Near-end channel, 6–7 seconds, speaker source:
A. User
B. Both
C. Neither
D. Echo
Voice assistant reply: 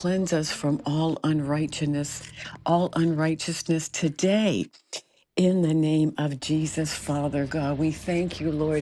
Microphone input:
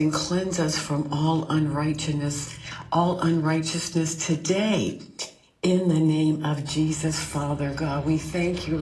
D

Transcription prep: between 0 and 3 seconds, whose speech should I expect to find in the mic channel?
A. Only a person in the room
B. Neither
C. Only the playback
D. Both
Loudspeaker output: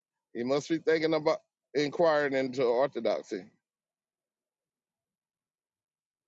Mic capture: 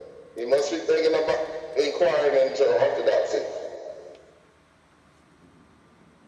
C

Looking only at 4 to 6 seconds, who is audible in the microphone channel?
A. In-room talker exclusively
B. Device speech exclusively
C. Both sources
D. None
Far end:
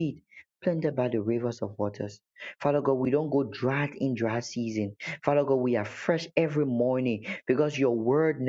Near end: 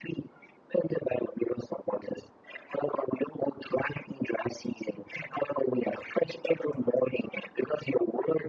B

